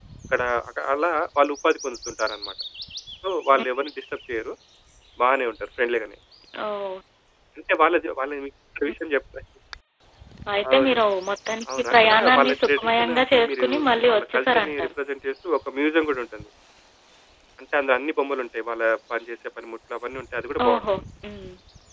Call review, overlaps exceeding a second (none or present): present